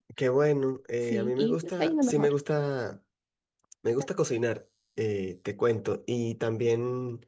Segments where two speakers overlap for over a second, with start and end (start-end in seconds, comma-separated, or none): 1.1-2.3